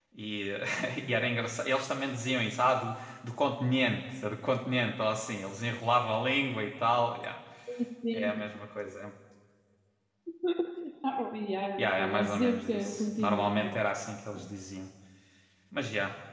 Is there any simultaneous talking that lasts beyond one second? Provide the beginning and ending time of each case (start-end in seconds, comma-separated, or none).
11.8-13.8